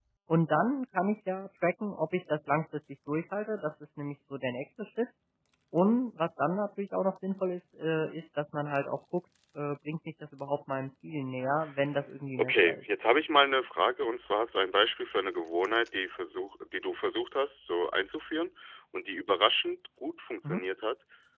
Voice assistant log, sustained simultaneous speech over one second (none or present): none